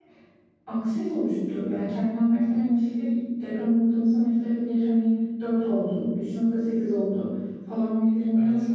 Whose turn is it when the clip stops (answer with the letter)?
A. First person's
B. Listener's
A